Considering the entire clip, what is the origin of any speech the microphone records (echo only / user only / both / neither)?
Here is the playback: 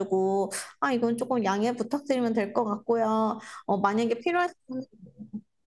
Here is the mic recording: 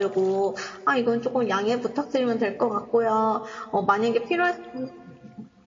echo only